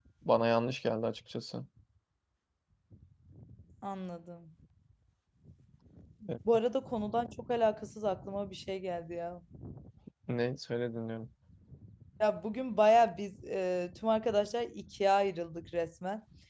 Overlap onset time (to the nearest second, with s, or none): none